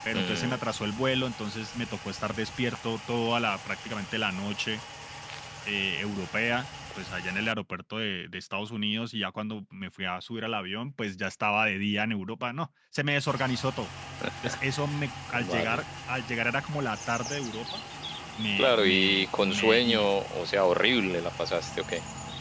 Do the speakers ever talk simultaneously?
Yes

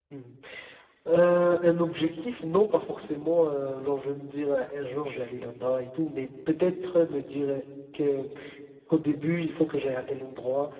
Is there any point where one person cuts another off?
No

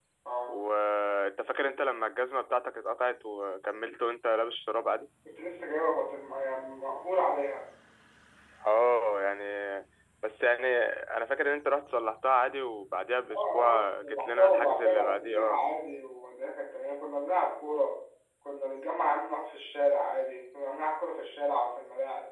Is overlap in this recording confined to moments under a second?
No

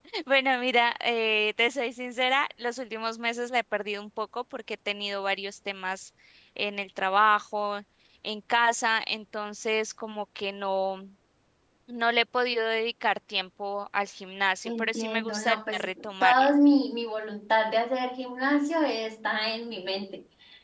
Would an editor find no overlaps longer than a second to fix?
No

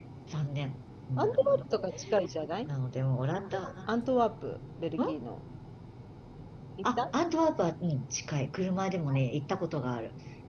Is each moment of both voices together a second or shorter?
Yes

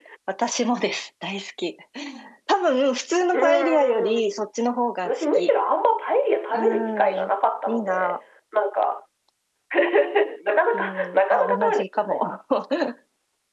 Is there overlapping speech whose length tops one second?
Yes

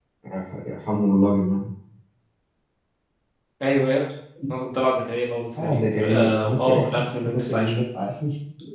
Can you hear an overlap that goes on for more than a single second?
Yes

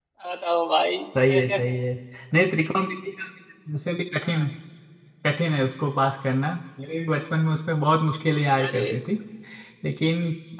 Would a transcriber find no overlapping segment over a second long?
Yes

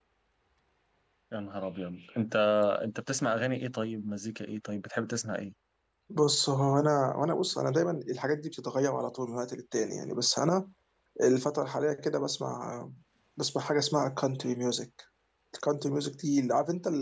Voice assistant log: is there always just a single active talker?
Yes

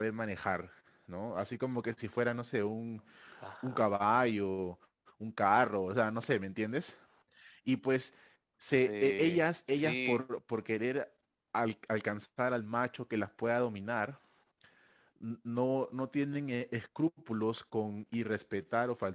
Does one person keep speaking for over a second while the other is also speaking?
Yes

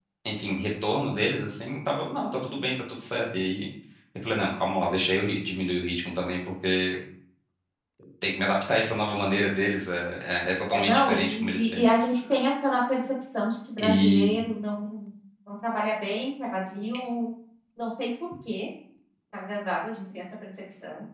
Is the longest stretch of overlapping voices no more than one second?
No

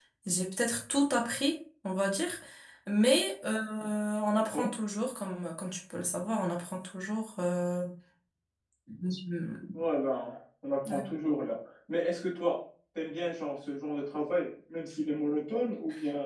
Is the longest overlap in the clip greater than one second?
No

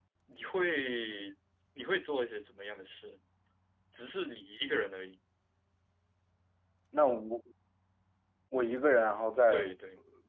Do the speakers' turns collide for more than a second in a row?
No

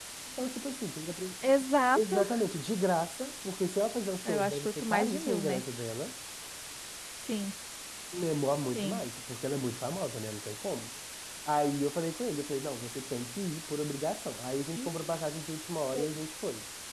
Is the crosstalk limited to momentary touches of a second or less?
No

